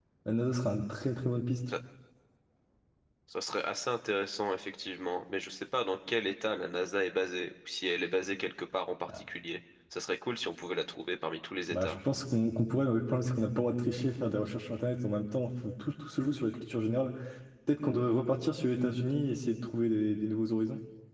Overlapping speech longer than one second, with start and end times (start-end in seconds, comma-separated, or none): none